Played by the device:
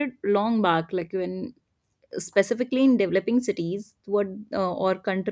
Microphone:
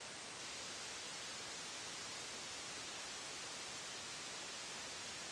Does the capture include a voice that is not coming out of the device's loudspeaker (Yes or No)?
No